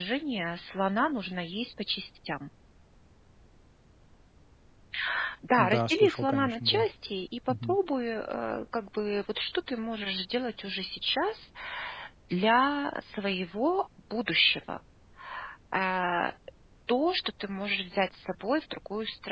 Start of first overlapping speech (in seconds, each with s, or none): 5.6 s